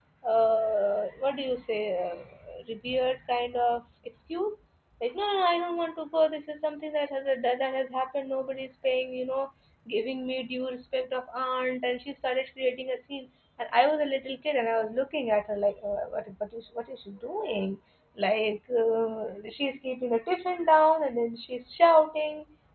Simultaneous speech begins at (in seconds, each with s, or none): none